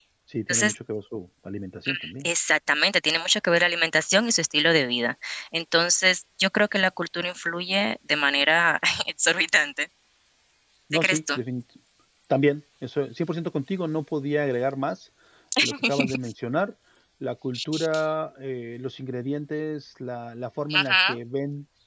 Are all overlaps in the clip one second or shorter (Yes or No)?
Yes